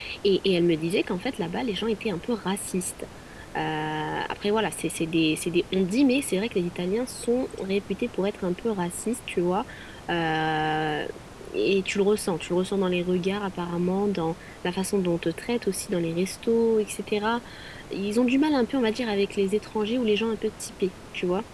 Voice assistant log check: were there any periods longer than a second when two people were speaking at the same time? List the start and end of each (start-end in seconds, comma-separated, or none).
none